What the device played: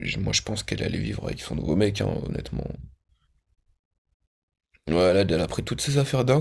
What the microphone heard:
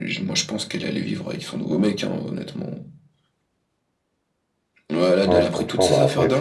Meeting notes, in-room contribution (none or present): present